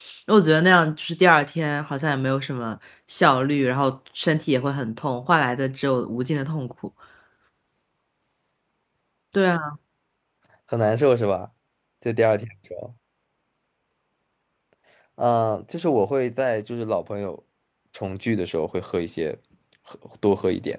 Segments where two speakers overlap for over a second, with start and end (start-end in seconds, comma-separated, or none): none